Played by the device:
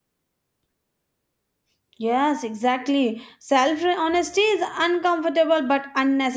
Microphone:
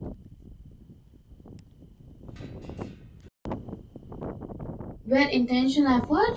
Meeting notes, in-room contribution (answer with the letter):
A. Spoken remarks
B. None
A